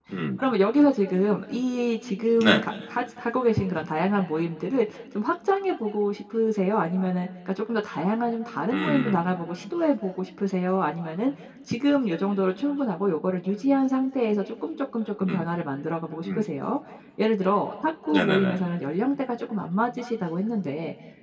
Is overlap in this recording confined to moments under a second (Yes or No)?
Yes